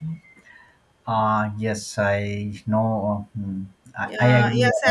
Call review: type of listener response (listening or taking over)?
taking over